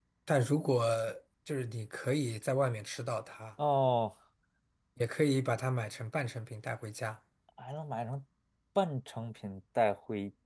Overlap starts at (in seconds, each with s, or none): none